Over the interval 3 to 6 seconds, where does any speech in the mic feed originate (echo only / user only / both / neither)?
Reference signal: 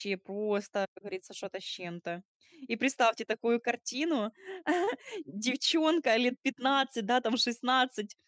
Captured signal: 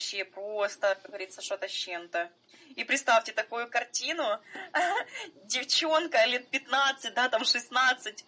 echo only